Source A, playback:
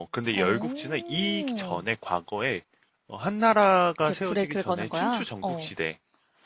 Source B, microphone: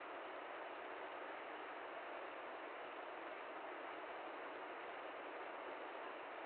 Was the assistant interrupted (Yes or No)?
No